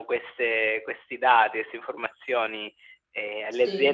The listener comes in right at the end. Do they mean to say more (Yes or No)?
No